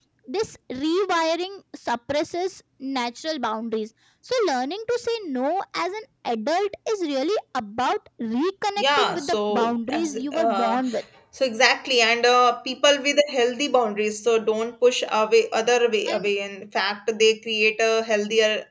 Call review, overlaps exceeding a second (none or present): present